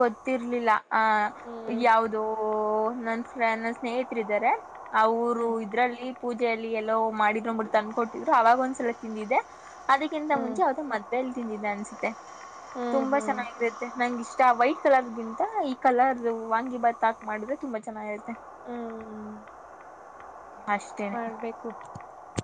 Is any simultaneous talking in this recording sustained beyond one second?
No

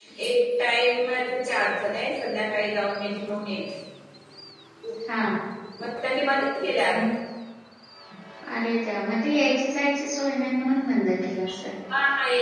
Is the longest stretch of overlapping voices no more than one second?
Yes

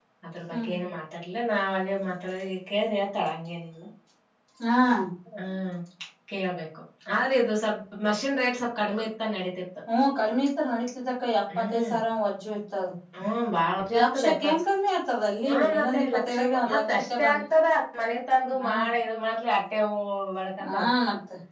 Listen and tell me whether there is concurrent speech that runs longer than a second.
Yes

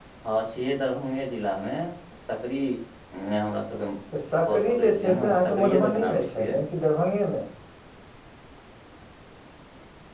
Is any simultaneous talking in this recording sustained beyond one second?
Yes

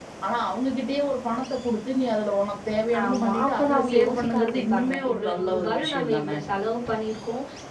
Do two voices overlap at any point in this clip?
Yes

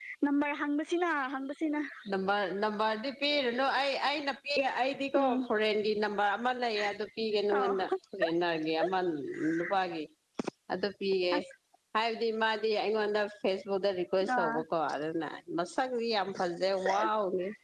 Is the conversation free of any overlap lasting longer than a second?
Yes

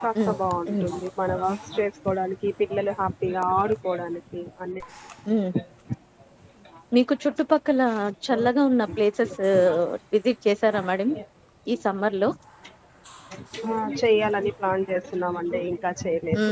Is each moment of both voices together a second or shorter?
Yes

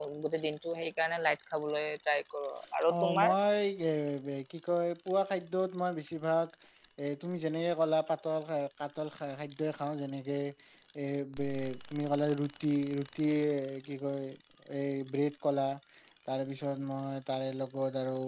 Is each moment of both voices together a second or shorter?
Yes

